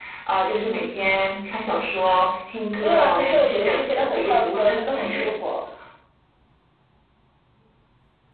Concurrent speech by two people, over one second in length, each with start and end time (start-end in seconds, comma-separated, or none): 2.8-4.8